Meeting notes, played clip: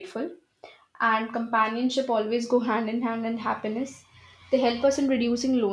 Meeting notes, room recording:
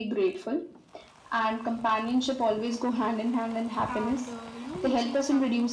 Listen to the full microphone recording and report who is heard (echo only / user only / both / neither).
both